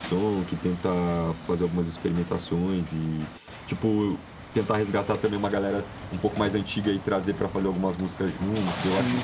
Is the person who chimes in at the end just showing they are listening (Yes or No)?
No